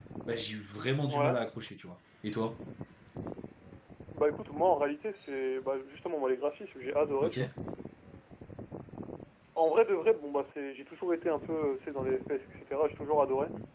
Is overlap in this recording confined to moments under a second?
Yes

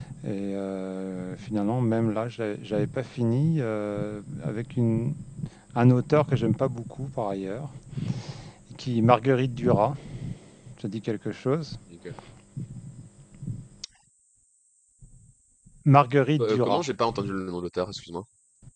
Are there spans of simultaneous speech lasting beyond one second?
No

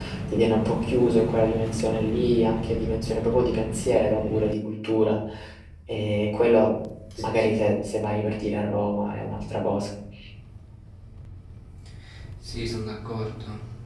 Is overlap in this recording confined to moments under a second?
Yes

